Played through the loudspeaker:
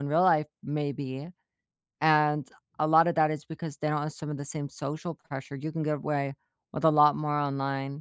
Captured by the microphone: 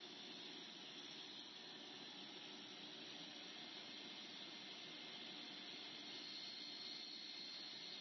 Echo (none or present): none